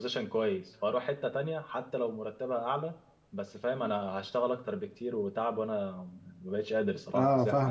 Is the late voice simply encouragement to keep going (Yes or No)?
No